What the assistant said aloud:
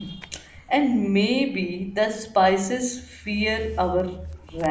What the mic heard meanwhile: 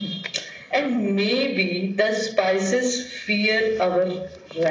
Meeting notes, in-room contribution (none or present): none